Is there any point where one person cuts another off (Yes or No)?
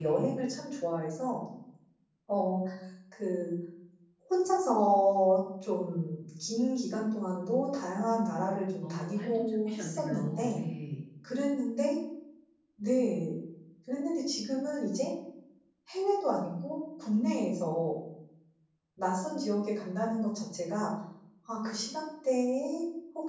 Yes